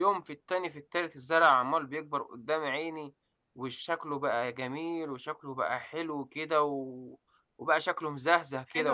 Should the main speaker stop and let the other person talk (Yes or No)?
Yes